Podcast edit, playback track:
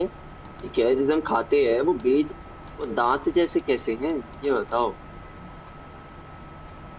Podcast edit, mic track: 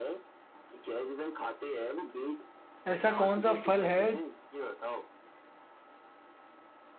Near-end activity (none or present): present